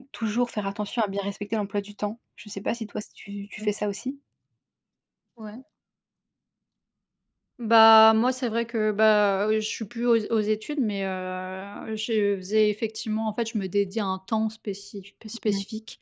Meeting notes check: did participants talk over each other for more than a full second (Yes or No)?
No